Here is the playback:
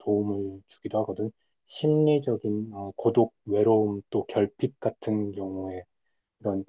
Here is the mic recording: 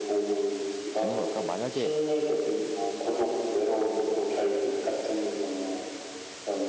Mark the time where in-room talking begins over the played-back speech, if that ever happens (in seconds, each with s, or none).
1.0 s